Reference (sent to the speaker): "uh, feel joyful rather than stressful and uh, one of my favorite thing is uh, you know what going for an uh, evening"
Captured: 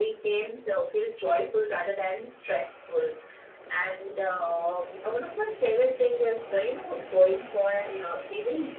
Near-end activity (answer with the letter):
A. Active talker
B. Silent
B